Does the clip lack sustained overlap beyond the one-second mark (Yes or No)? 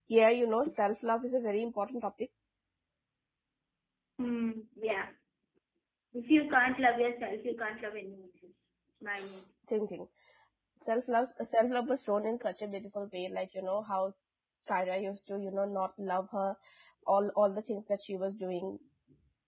Yes